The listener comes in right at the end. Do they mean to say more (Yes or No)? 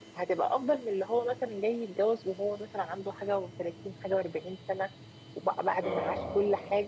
No